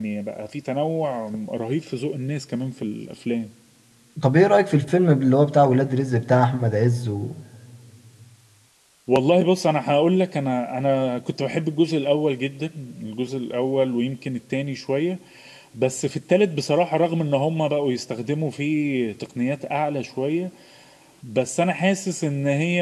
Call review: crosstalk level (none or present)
none